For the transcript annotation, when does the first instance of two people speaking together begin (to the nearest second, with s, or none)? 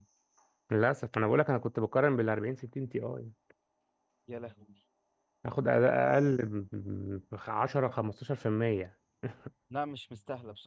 none